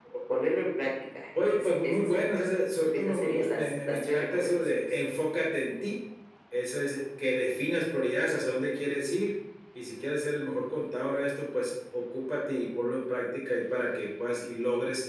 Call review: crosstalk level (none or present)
present